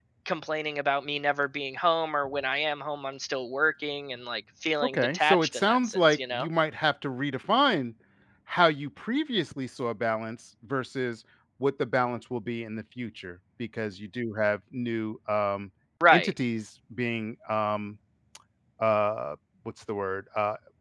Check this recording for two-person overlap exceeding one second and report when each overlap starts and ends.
4.8-6.5

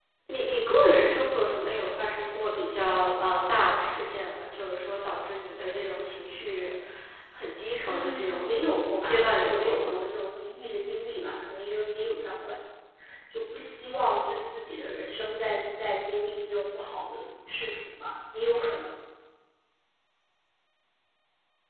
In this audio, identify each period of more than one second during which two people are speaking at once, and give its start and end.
7.8-9.9

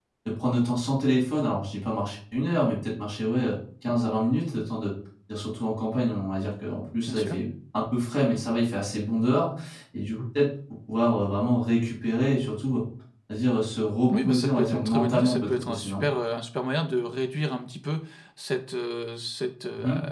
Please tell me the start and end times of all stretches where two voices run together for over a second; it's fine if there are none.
14.1-16.1

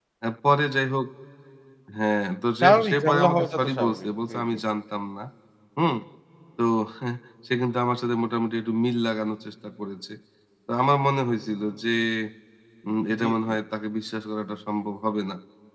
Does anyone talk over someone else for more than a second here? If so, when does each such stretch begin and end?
2.6-4.6

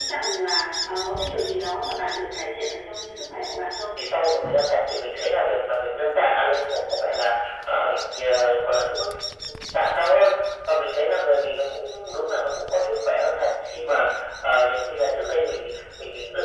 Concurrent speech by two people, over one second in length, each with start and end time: none

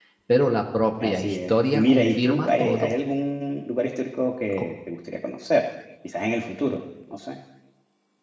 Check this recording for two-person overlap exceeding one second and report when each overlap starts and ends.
1.0-2.9

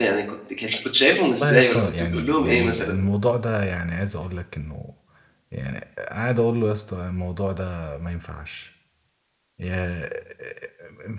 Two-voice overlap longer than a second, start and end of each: 1.4-2.9

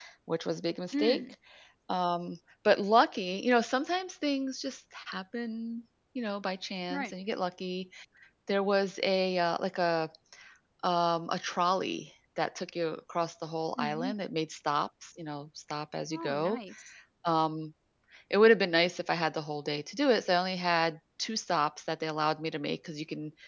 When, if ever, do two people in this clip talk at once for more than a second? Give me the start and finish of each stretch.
none

